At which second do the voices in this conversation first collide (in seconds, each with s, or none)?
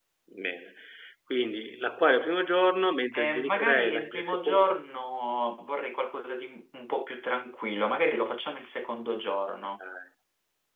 3.1 s